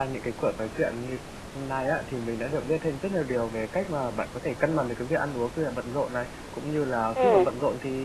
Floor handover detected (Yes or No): No